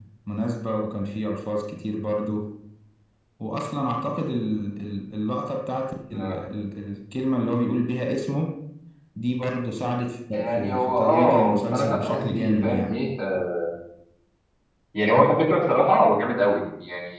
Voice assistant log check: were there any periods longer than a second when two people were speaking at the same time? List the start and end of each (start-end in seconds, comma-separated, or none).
10.3-12.9